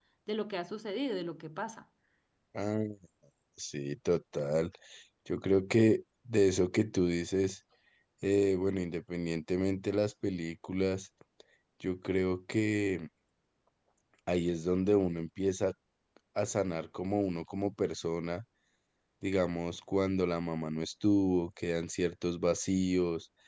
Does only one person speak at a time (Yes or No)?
Yes